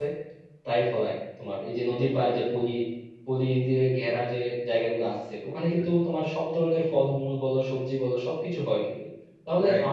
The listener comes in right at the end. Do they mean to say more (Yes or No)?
No